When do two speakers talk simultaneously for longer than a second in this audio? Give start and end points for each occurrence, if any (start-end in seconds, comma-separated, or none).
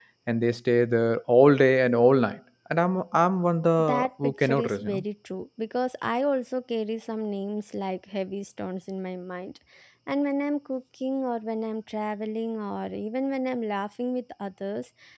3.8-5.0